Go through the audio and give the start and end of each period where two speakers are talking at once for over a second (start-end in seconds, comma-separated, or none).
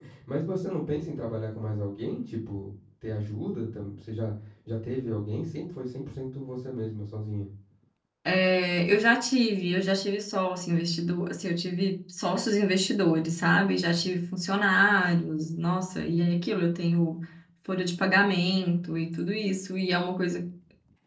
none